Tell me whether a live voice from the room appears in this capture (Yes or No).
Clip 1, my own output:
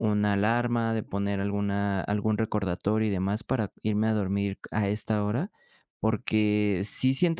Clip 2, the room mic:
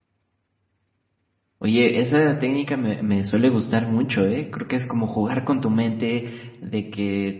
Yes